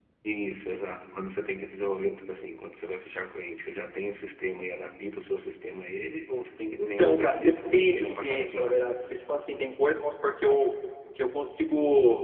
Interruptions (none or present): present